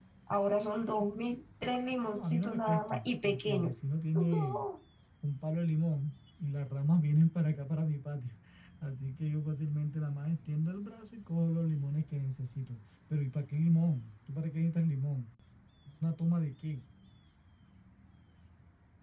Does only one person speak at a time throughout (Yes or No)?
No